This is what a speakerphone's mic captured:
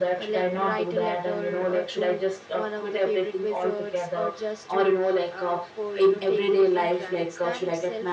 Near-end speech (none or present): none